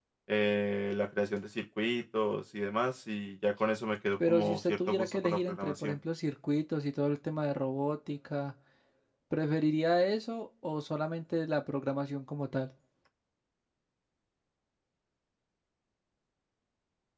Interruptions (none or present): present